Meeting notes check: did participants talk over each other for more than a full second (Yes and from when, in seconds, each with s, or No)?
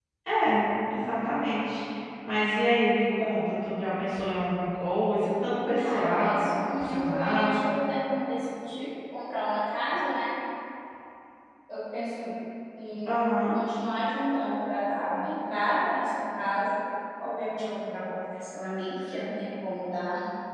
Yes, from 5.8 s